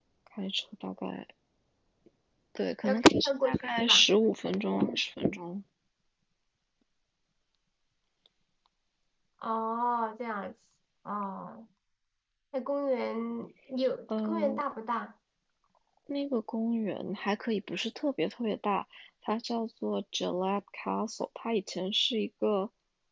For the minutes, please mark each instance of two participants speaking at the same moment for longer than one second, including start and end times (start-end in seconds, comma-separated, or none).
2.8-4.0